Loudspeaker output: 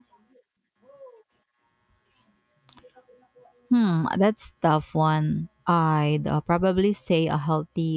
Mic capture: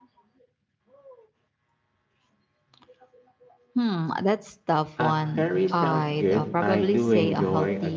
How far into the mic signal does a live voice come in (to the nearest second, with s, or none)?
5 s